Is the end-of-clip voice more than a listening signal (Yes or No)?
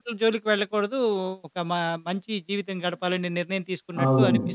Yes